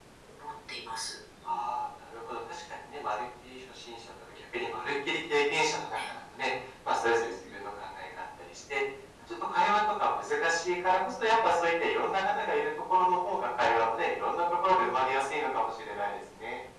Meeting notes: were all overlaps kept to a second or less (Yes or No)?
Yes